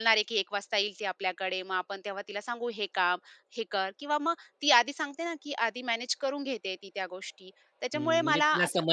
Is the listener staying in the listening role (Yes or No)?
No